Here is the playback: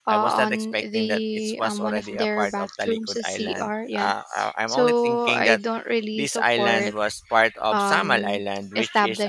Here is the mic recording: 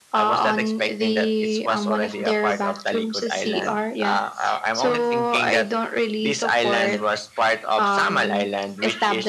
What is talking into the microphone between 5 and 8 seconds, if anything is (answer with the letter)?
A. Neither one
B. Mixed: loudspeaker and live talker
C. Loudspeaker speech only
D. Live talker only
C